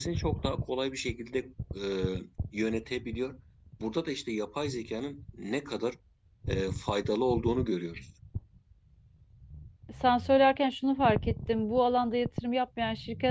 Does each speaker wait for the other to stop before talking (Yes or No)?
Yes